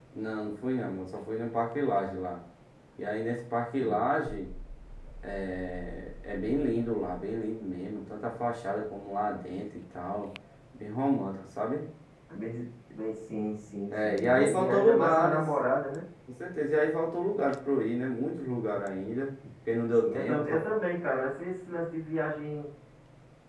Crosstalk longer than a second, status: present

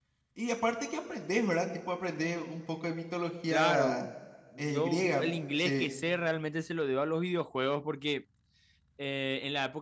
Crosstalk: present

